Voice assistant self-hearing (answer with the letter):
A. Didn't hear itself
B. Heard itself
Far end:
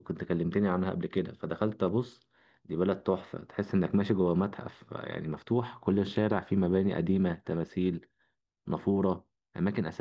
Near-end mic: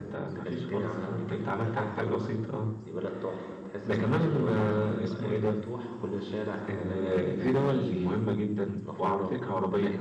B